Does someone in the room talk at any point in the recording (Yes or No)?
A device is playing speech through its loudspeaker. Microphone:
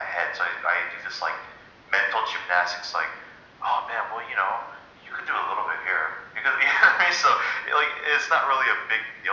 No